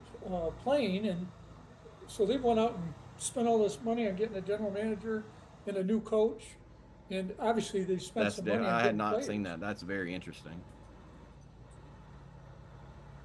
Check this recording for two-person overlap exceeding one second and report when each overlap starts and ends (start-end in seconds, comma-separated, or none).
8.2-9.4